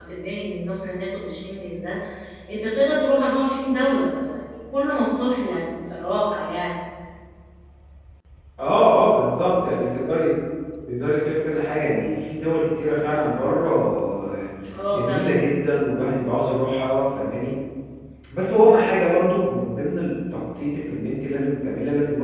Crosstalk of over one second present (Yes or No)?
No